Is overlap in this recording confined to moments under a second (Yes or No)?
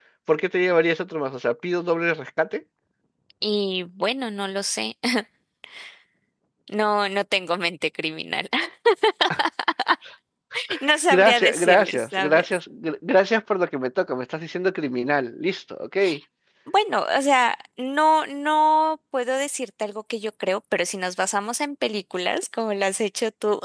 No